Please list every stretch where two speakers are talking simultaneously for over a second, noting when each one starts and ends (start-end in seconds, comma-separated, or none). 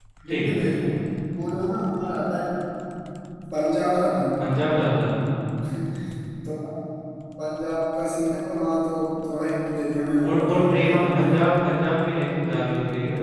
10.2-11.5